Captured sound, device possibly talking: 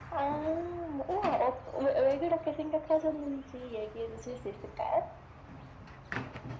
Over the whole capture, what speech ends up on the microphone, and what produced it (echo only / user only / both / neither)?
echo only